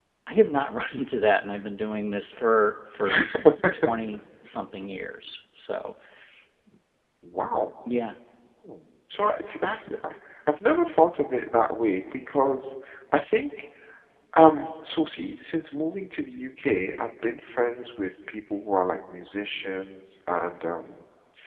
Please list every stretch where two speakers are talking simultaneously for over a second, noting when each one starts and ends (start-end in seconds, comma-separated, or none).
none